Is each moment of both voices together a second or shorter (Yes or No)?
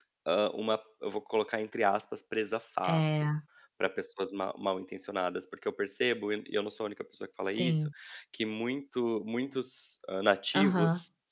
Yes